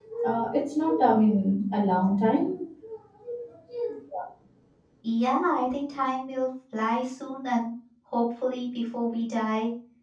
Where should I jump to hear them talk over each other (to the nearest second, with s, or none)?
none